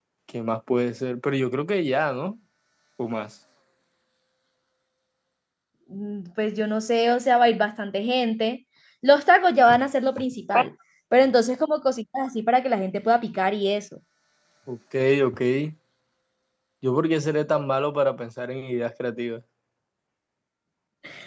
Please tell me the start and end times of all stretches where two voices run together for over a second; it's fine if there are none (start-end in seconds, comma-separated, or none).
none